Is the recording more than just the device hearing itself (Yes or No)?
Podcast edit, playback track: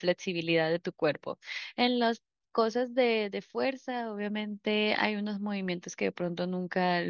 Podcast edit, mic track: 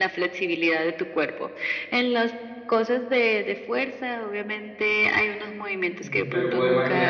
Yes